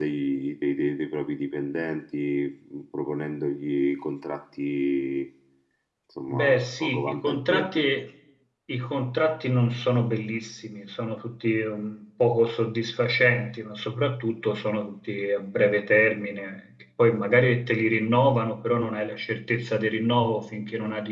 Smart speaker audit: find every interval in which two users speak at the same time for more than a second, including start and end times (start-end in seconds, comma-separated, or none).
6.3-7.9